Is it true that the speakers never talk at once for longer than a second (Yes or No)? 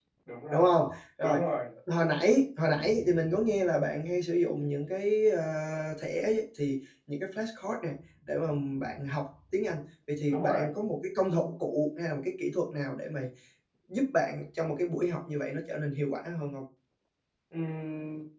Yes